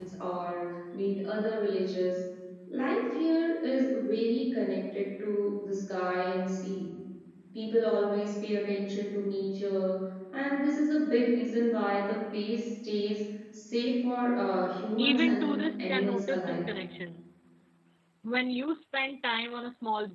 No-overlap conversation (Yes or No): No